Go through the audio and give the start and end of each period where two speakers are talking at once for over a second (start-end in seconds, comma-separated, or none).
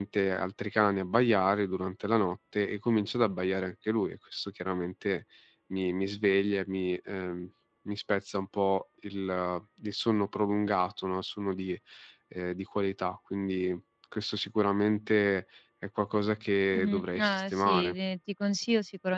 16.7-17.9